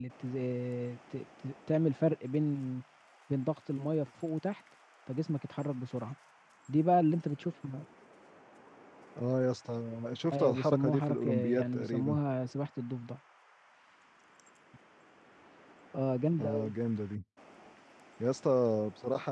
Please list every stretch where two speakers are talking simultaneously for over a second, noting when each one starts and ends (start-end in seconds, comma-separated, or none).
10.3-12.2